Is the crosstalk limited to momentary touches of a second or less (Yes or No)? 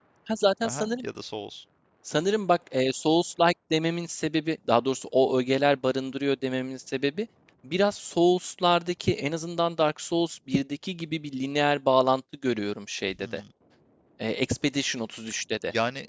Yes